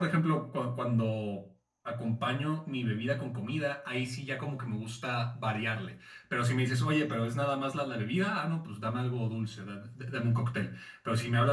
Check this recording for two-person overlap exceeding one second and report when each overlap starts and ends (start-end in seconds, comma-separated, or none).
none